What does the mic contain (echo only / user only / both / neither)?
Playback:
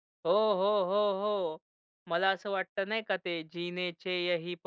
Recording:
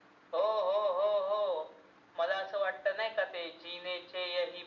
echo only